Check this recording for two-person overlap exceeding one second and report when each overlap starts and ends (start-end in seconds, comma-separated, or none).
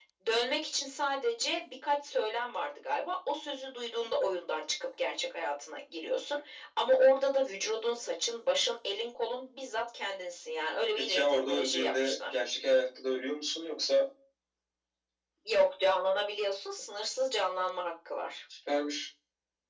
11.0-12.3